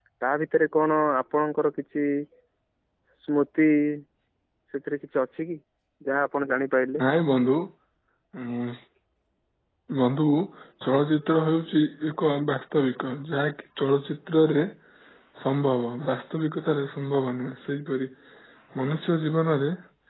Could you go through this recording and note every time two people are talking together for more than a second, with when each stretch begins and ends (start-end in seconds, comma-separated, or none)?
none